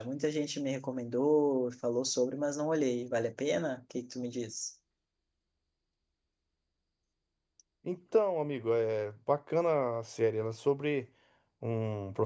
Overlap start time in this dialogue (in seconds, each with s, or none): none